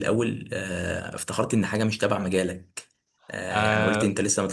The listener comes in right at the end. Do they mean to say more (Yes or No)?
No